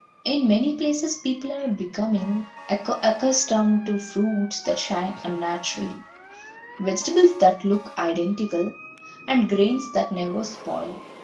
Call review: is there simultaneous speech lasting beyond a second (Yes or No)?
No